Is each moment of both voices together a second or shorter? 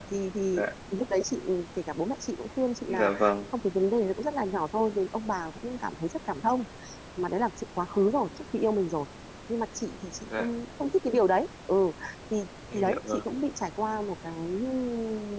Yes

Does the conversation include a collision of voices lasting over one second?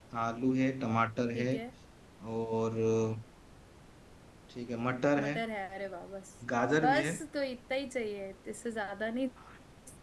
No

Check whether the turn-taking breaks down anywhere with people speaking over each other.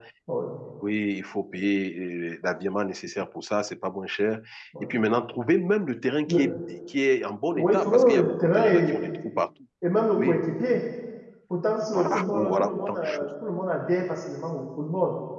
Yes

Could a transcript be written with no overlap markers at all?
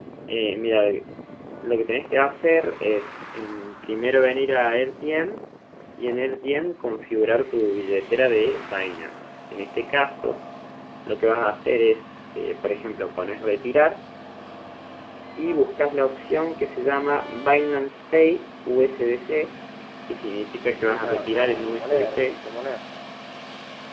No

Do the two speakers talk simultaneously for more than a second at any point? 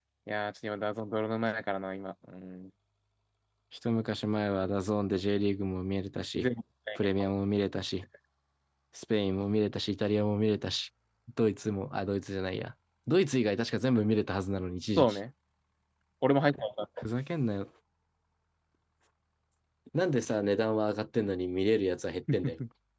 No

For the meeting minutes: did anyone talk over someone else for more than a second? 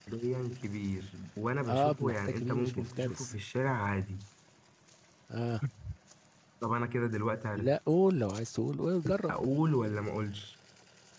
Yes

